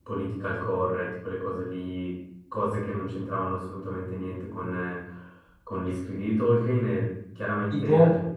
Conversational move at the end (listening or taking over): listening